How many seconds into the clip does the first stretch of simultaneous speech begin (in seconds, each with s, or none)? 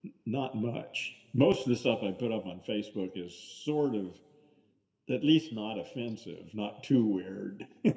none